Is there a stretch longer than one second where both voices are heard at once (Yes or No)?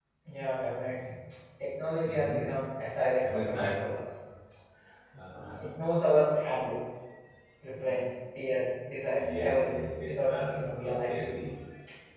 Yes